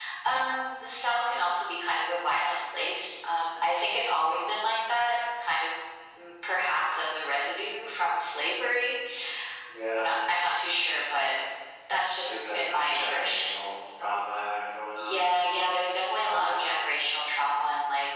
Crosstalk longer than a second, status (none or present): present